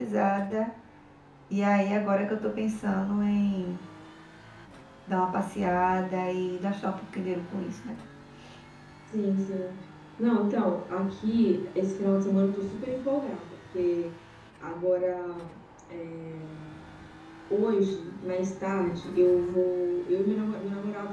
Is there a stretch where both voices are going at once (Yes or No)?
No